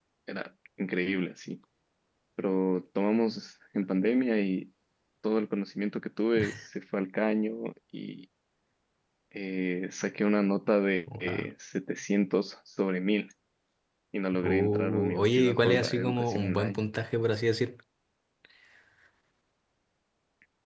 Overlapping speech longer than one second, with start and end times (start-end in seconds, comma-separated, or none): 14.4-16.8